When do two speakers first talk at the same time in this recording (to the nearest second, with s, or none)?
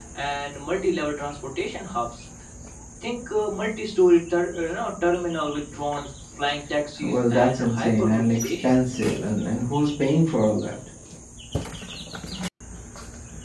7 s